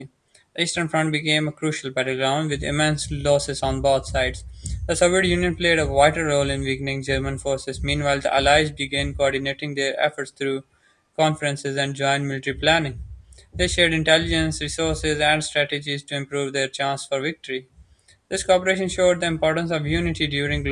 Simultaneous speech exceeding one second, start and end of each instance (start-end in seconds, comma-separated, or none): none